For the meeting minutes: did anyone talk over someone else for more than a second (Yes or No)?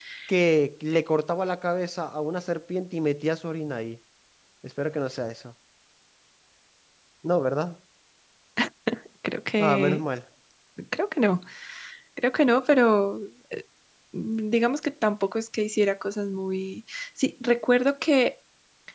No